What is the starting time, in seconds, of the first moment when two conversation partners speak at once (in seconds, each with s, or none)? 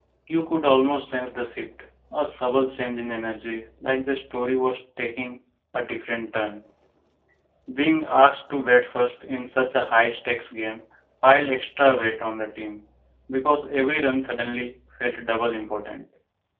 none